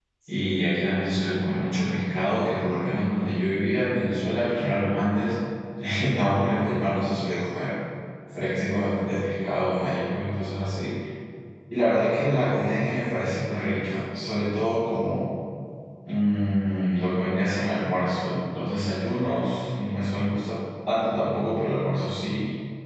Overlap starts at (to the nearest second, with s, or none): none